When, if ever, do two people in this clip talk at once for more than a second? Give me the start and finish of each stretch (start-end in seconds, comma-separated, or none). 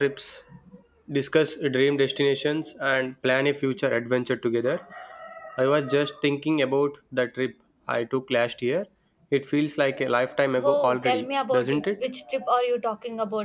10.6-11.9